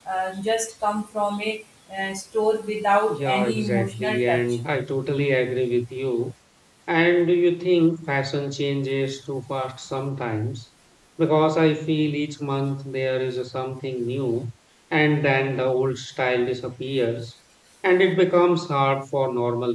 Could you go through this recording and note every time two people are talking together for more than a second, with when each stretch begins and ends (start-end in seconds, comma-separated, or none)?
3.1-4.6